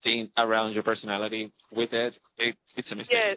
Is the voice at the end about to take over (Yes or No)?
Yes